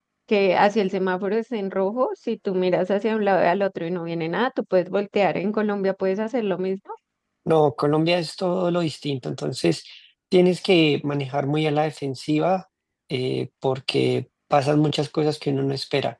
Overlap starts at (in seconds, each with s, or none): none